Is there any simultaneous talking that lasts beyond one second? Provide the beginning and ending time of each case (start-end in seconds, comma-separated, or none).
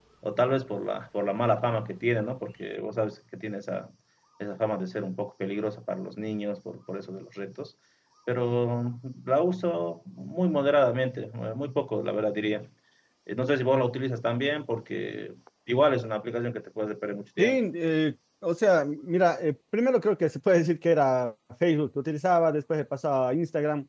none